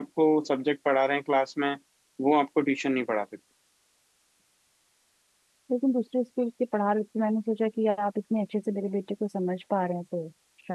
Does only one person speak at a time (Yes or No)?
Yes